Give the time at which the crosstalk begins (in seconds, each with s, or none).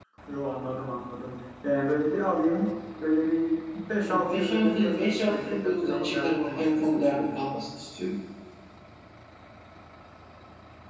4.0 s